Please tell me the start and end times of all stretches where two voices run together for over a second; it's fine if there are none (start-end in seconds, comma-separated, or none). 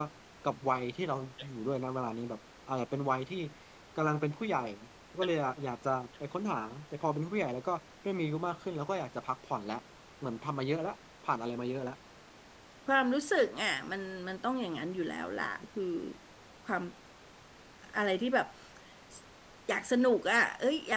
none